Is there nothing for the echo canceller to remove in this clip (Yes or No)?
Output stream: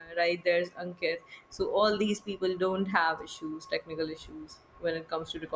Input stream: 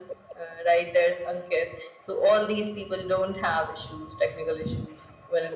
No